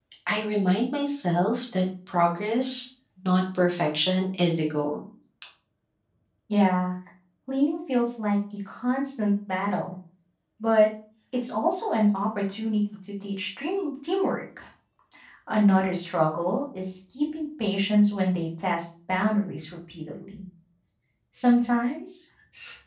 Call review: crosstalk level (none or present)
none